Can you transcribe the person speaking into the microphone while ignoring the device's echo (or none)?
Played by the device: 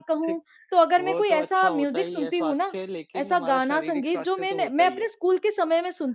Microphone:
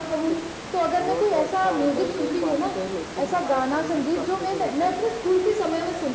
none